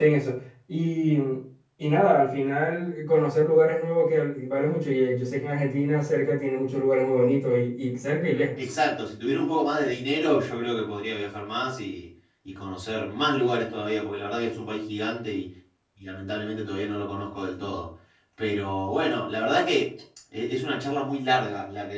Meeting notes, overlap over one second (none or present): none